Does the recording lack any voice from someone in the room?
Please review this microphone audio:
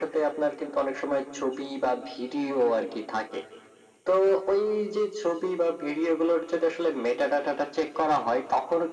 Yes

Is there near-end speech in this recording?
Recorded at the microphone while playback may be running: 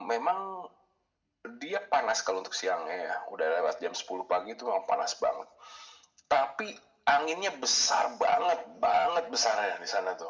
No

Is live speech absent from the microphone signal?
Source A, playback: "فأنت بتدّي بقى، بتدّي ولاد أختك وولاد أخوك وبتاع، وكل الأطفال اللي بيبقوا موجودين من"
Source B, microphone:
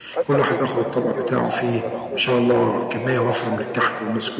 No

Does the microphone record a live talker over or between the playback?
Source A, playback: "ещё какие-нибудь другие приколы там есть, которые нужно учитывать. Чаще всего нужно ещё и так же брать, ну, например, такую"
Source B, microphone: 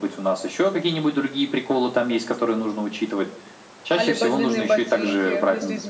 Yes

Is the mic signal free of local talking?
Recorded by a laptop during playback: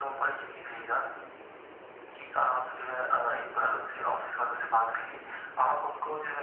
Yes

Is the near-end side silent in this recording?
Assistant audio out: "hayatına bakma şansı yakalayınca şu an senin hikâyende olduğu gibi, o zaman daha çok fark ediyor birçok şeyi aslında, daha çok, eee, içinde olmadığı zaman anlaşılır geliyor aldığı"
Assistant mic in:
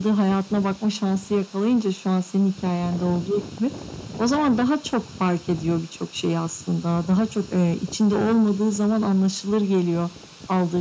Yes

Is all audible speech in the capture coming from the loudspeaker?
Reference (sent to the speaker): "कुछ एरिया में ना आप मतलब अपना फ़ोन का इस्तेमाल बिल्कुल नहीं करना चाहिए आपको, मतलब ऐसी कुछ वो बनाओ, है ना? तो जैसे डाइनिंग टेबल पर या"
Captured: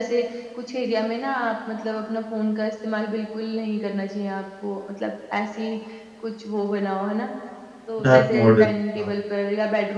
No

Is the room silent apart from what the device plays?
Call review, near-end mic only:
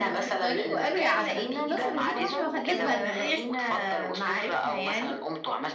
No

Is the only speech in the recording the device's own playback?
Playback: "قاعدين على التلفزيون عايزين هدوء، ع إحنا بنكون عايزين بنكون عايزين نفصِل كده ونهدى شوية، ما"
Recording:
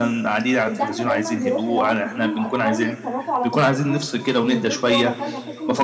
No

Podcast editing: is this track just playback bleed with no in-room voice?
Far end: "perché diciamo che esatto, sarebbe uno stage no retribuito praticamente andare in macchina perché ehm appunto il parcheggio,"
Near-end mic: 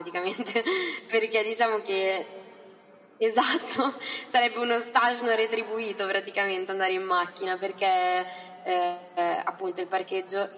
Yes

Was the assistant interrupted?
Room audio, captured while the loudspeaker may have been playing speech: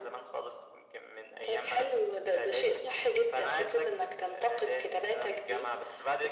No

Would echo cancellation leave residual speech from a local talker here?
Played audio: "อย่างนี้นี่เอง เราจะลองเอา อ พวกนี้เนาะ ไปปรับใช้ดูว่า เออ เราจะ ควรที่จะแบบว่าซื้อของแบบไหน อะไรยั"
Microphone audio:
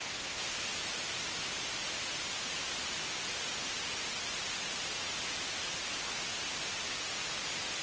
No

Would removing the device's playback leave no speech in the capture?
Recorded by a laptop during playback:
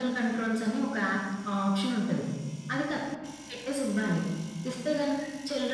Yes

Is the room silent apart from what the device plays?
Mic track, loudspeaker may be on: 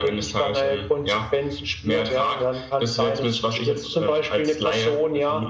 Yes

